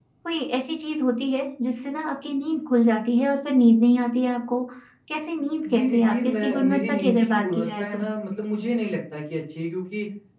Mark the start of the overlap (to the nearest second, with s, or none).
6 s